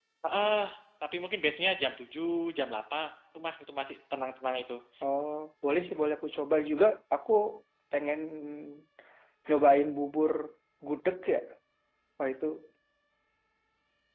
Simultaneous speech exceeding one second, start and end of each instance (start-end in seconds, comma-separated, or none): none